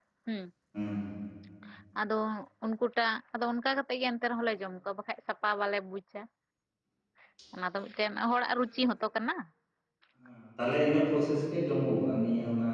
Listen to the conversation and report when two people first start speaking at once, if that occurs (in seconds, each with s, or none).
none